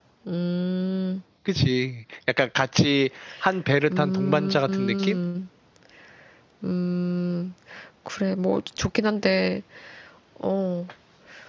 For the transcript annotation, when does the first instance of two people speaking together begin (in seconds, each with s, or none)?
3.9 s